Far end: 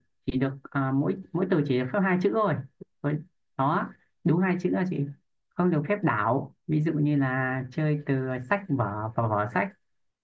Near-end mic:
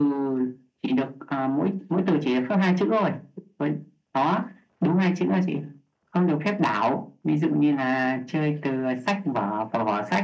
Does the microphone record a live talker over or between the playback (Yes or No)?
No